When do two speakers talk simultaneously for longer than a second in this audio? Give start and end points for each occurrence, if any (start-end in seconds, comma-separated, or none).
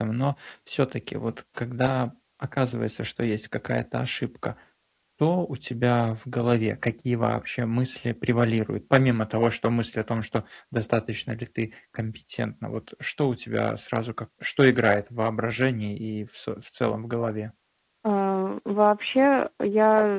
none